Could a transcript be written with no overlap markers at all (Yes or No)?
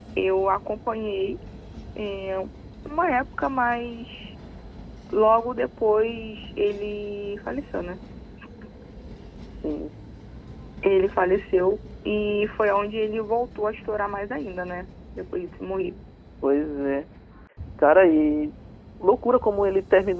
Yes